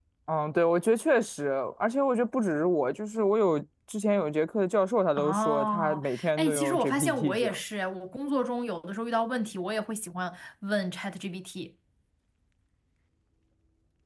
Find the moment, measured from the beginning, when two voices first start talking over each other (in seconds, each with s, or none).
5.2 s